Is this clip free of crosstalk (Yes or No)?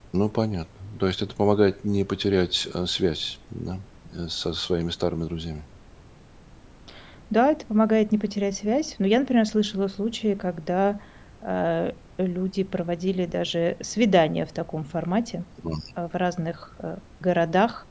Yes